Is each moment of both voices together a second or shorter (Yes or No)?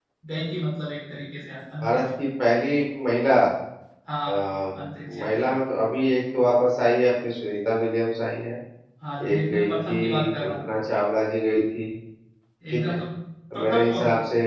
No